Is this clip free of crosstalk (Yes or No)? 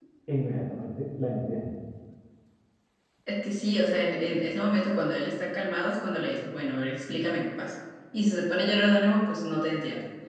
Yes